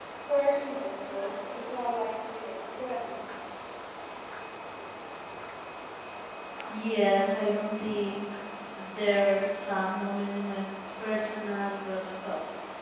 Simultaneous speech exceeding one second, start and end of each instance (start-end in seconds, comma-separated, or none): none